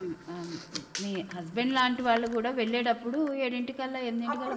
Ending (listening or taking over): taking over